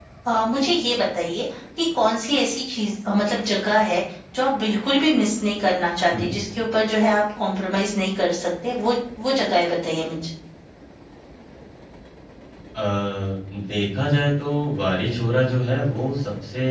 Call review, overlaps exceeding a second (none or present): none